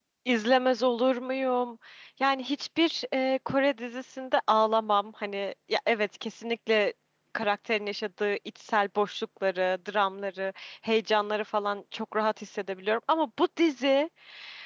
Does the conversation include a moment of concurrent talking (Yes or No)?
No